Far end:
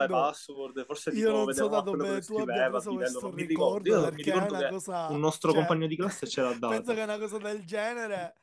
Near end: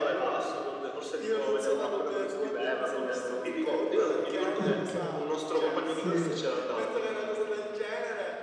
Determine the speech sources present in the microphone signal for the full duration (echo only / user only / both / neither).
both